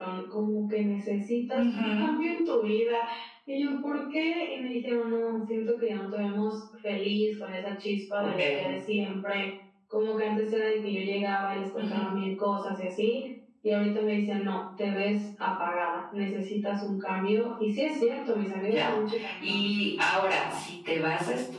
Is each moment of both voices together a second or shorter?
Yes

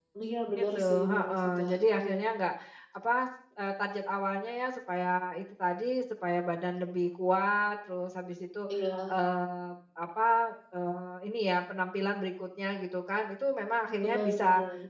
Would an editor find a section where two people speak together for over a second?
Yes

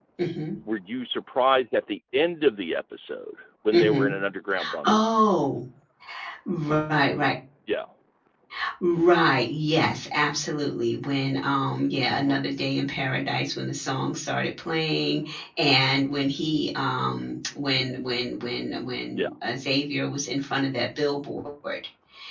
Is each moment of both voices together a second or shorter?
Yes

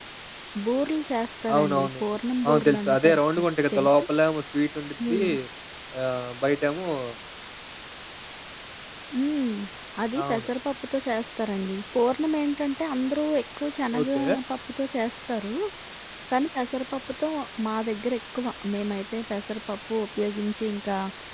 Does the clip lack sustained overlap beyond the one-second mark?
No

